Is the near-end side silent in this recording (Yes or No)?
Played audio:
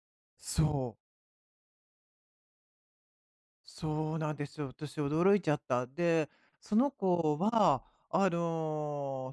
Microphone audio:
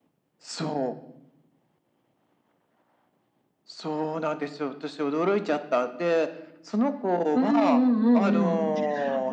No